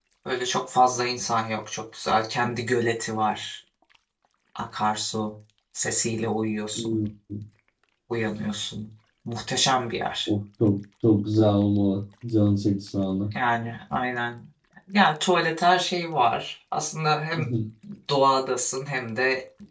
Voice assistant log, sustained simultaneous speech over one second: none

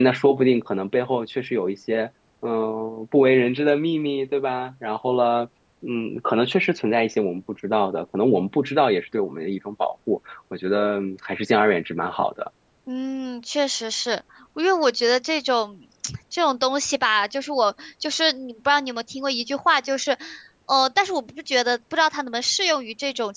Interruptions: none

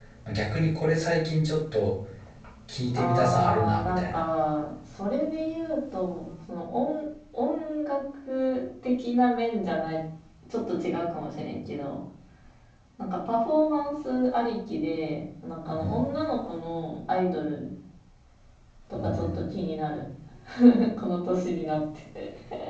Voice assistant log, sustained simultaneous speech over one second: present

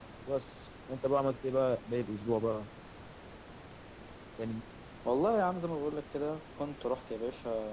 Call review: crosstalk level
none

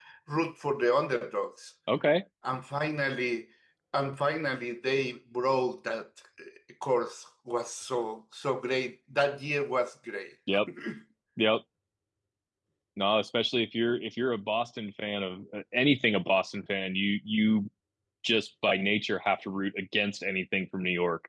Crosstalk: none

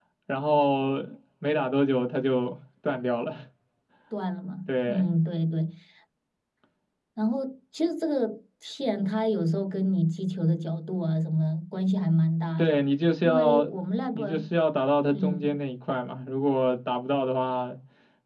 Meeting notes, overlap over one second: none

